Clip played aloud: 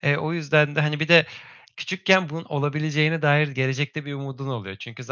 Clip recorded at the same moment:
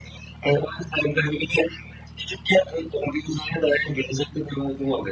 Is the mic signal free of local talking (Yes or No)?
Yes